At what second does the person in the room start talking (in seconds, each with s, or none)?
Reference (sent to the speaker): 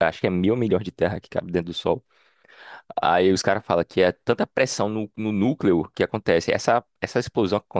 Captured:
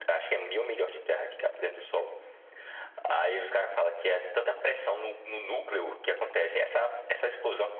none